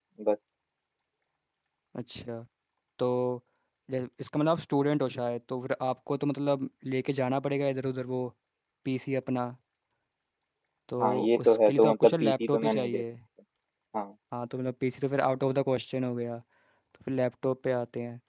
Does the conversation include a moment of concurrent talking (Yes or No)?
Yes